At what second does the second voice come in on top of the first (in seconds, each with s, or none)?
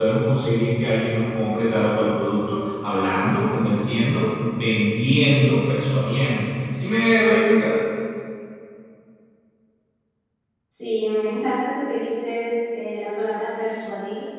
none